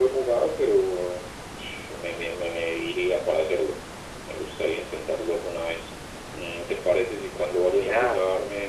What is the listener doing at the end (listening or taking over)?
listening